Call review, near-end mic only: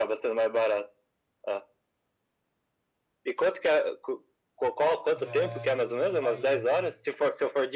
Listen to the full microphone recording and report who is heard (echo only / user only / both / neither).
both